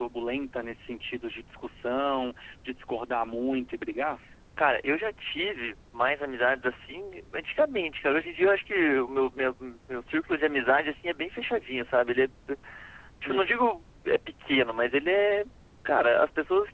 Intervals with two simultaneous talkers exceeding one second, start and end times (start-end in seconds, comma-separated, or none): none